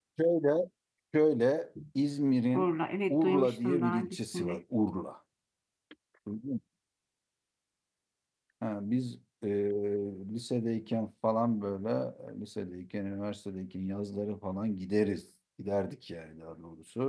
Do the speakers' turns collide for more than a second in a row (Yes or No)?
Yes